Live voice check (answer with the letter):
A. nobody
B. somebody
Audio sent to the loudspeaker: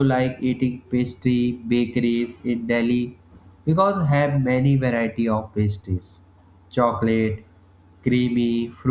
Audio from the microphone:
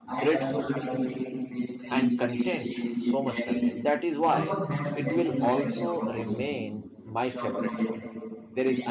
B